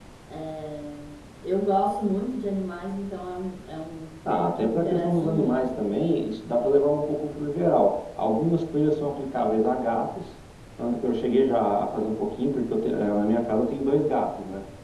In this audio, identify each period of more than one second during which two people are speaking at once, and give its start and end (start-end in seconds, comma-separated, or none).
4.3-5.7